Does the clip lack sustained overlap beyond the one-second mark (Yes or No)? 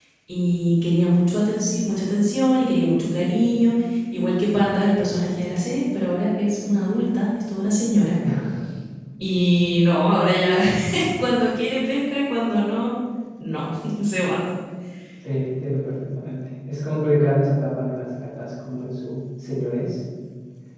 Yes